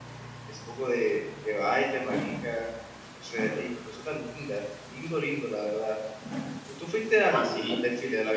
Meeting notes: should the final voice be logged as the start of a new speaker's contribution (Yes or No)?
No